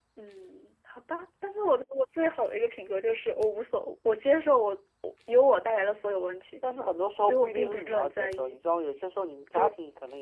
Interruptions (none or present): present